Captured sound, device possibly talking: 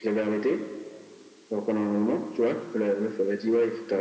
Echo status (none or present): present